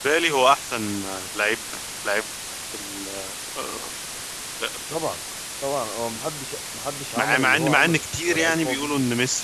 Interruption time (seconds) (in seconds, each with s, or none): 7.2 s